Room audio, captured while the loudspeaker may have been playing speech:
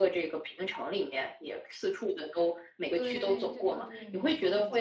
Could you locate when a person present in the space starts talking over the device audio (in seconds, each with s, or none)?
2.9 s